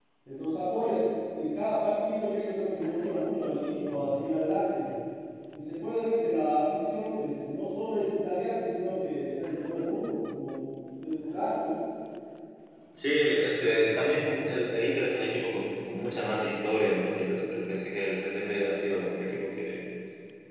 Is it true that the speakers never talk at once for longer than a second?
Yes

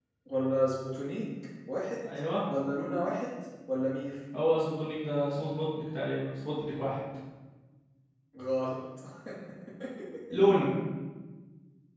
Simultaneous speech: No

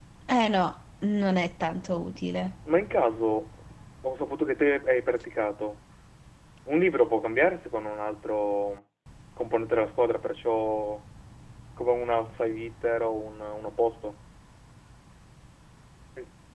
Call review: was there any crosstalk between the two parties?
No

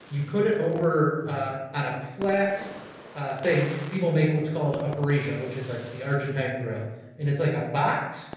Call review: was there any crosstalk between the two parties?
No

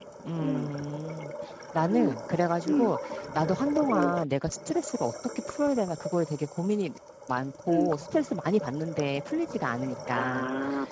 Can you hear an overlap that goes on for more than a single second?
No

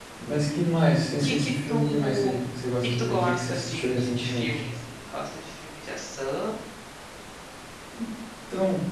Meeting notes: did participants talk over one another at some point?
Yes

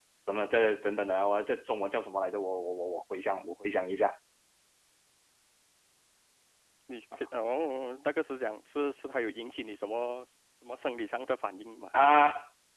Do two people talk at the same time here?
No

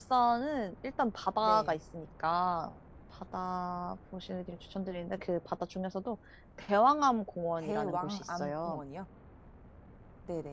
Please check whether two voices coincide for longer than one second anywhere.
Yes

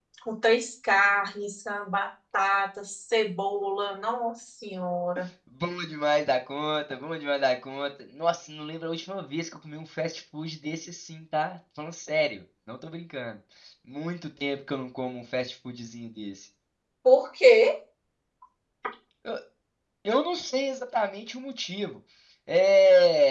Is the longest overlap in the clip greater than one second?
No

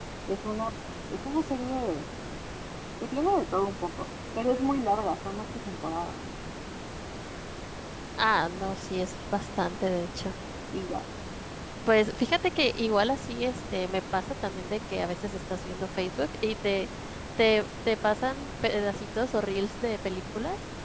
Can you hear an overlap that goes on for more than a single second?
No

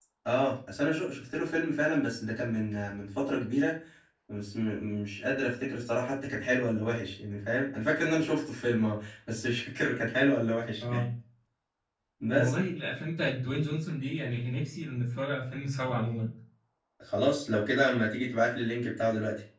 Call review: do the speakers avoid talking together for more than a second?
Yes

